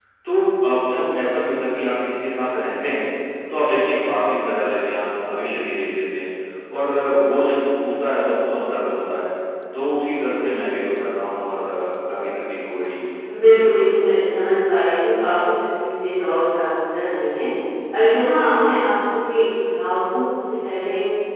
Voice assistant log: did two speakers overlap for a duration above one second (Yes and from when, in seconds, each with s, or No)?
No